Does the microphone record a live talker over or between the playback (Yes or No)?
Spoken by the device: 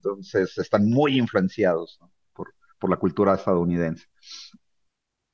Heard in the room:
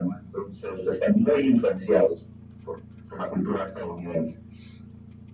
No